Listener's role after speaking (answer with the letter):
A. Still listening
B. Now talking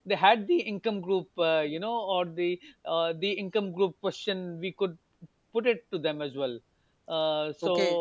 B